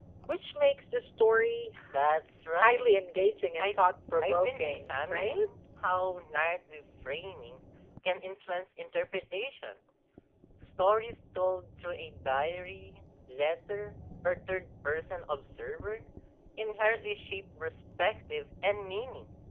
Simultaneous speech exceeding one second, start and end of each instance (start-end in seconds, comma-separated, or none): 4.2-5.5